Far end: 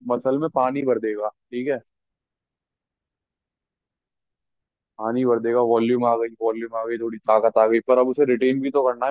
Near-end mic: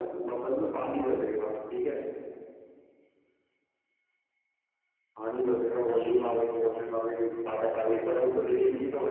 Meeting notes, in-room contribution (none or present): none